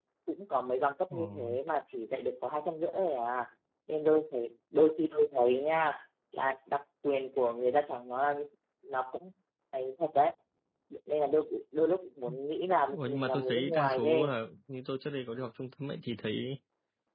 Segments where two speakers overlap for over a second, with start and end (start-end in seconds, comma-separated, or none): 12.9-14.3